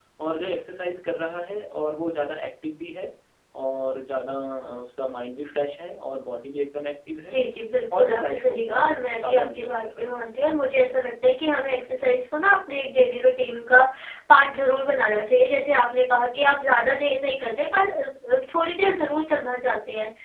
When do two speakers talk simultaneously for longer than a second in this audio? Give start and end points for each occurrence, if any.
8.0-10.2

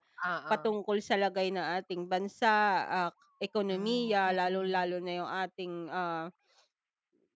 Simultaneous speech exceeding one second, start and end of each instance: 3.7-4.9

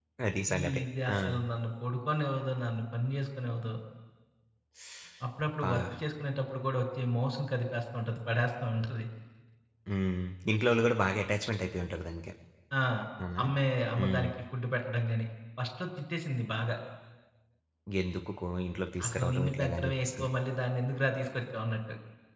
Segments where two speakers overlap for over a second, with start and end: 19.1-20.3

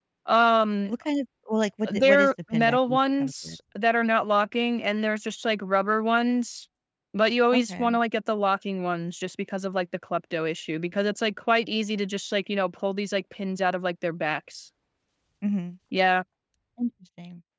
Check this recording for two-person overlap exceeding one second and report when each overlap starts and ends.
1.9-3.6

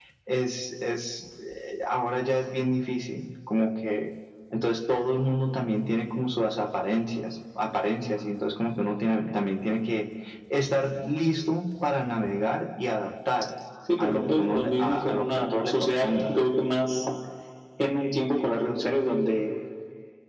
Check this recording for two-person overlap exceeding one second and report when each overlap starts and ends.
14.0-16.3

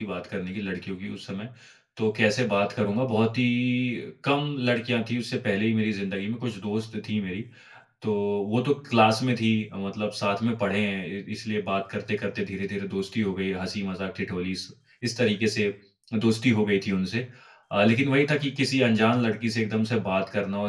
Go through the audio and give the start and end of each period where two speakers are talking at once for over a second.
none

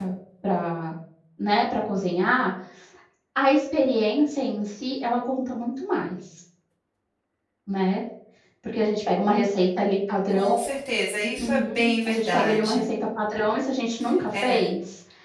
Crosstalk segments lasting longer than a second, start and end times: 11.4-12.8

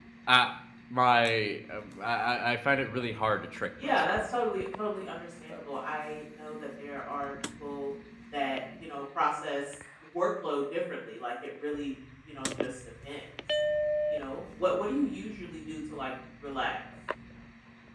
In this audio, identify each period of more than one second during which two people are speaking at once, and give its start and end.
none

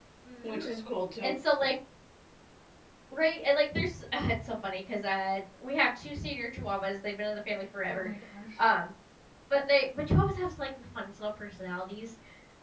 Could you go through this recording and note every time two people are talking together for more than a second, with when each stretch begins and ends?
none

